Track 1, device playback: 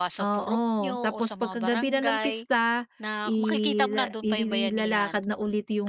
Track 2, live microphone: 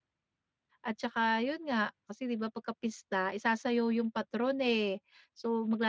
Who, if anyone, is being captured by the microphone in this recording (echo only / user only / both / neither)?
user only